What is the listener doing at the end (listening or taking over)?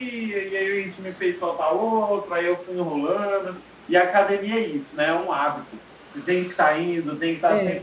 listening